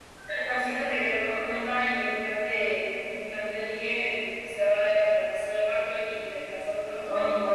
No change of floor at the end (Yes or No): No